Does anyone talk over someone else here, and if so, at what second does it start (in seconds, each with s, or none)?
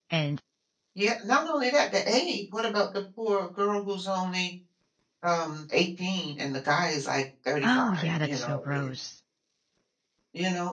7.6 s